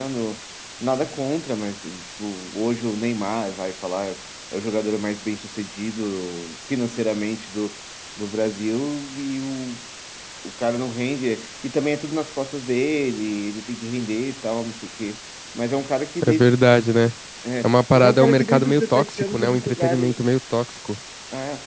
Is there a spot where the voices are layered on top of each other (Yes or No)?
Yes